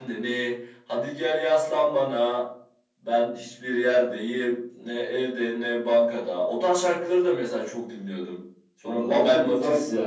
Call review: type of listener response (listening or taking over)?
taking over